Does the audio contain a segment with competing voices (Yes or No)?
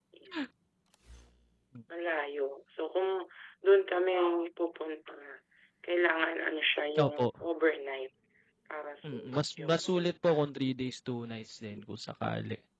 Yes